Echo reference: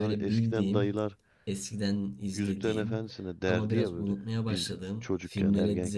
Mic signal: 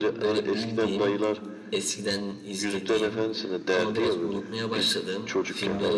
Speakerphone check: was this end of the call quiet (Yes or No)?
Yes